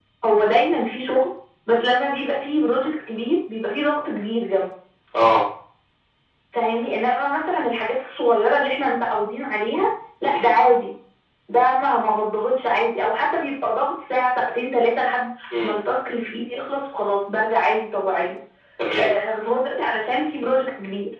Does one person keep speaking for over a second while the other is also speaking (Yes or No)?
No